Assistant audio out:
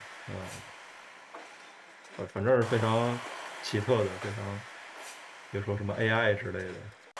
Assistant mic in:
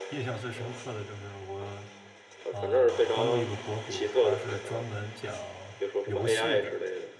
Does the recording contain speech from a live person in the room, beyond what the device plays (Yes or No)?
Yes